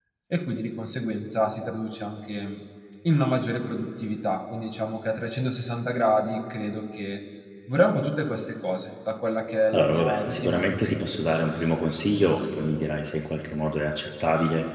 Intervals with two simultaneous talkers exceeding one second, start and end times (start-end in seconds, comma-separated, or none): 9.7-10.9